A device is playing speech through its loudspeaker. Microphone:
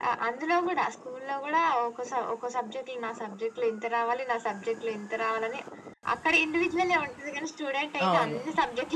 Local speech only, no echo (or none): అవును.